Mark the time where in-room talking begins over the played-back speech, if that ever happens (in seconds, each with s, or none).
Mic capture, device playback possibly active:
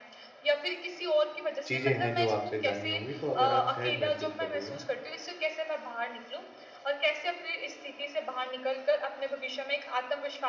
1.7 s